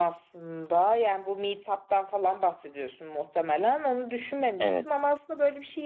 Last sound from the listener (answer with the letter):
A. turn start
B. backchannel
B